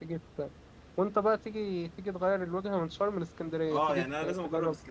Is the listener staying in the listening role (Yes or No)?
No